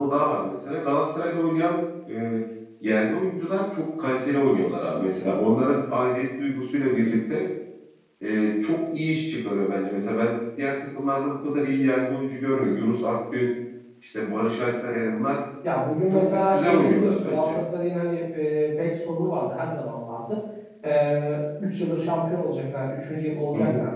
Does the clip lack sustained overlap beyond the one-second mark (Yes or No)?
No